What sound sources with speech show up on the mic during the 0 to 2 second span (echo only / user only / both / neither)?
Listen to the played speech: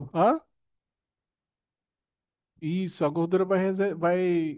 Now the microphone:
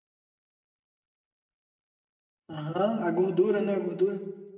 neither